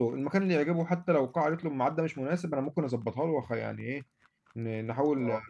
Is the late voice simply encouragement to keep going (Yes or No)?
Yes